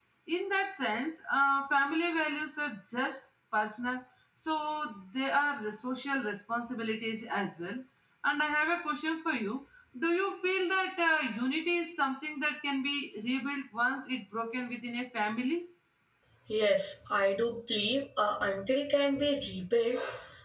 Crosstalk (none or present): none